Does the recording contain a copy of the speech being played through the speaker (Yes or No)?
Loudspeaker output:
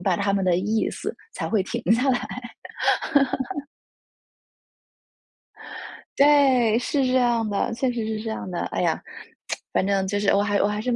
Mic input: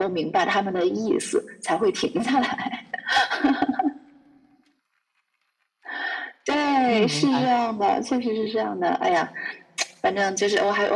Yes